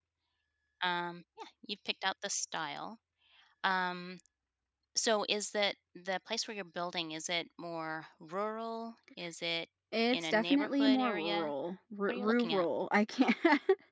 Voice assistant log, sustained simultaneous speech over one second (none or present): present